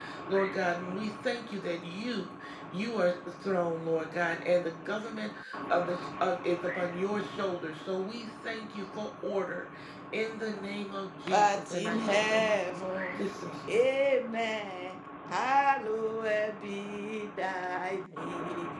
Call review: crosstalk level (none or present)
present